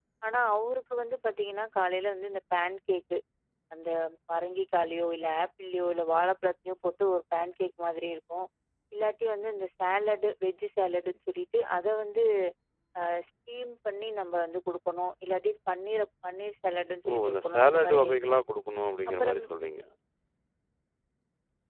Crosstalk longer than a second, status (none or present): present